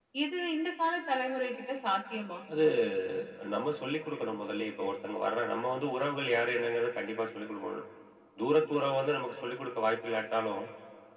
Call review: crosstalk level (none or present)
none